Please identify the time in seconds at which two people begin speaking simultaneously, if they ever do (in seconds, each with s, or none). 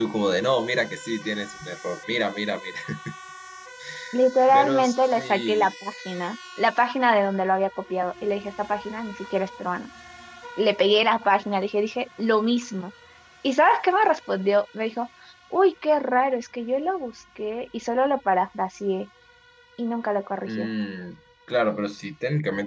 4.5 s